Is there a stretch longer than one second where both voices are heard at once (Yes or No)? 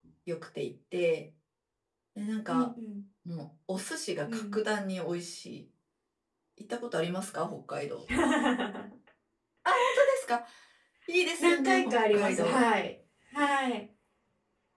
Yes